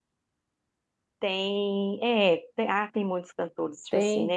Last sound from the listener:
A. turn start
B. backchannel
B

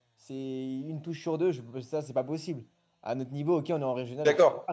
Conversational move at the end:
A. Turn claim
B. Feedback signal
A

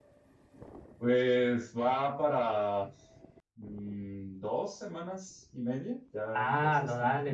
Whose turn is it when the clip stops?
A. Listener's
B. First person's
A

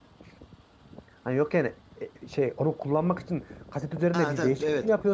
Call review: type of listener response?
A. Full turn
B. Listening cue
A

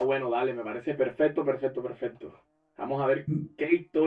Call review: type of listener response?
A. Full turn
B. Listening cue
B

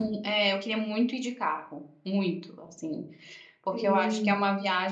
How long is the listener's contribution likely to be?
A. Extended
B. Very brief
B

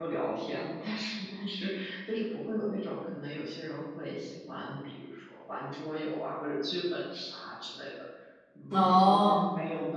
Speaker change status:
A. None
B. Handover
A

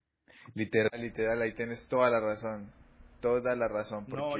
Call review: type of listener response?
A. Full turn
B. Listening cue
A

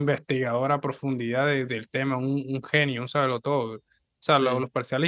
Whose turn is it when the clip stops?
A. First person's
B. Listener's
A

